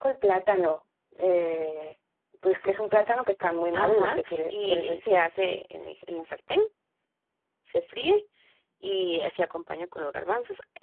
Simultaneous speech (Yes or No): Yes